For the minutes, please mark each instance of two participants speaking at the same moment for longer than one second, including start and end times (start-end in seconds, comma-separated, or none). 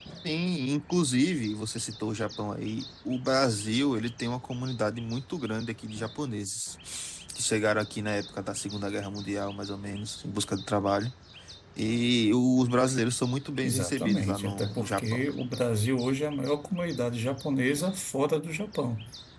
13.6-15.2